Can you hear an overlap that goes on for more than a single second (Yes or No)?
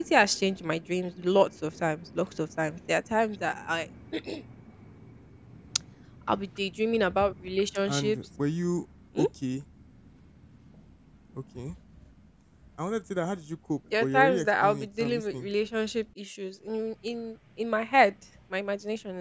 Yes